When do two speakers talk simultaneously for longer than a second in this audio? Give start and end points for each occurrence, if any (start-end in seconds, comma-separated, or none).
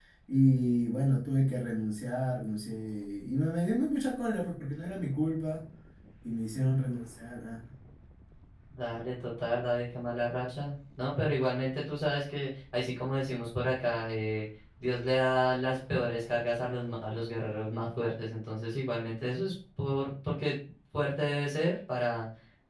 none